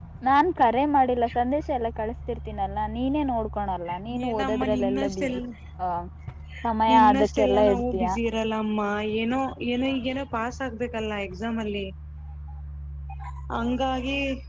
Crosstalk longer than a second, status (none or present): present